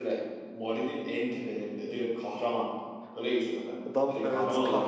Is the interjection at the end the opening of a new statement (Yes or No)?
Yes